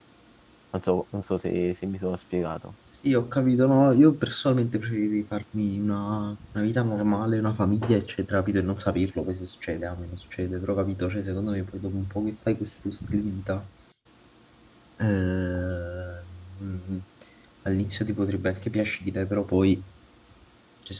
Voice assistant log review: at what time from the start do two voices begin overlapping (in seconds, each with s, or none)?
none